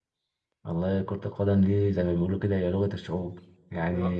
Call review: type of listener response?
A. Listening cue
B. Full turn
A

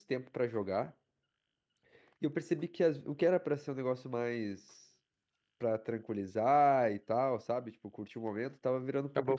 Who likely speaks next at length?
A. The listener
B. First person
A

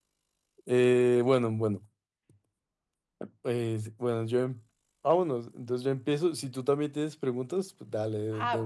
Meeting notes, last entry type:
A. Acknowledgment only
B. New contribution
B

